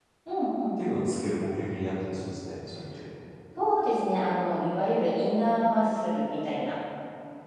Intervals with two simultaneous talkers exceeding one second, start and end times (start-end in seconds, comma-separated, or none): none